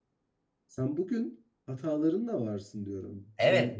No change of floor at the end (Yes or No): No